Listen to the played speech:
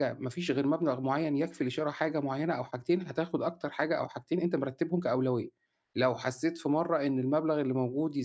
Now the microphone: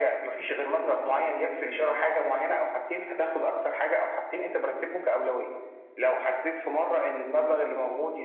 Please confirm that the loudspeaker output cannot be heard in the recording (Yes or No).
No